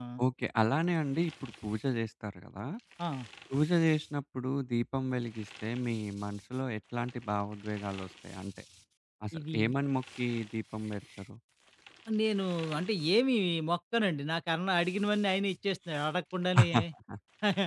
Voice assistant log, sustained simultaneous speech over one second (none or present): none